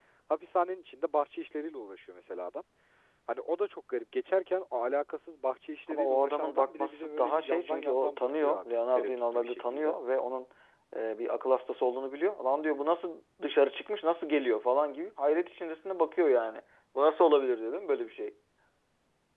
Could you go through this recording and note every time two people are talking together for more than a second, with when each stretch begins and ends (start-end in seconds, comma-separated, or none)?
5.9-9.9